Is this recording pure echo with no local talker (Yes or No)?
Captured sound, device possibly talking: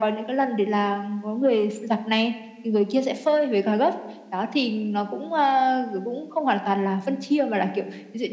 Yes